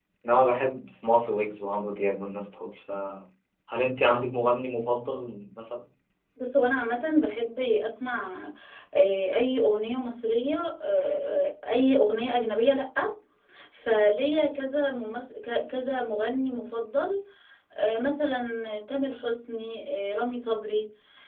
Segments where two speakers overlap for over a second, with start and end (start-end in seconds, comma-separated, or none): none